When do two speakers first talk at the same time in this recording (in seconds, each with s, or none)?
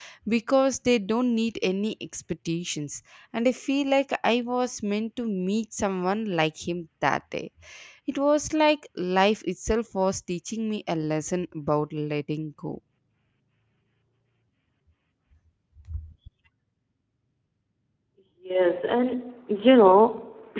none